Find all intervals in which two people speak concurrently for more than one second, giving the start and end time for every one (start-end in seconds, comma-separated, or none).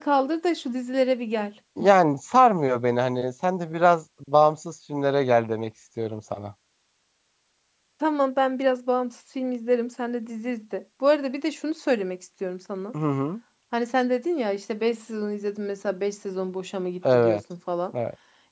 none